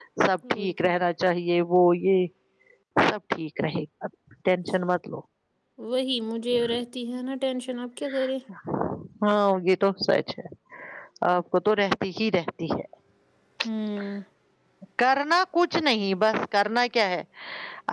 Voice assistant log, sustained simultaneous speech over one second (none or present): none